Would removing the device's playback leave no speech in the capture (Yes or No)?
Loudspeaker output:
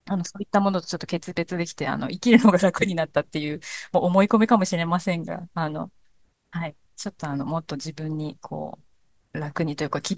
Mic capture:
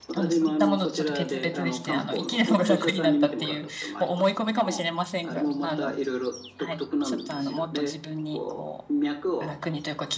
No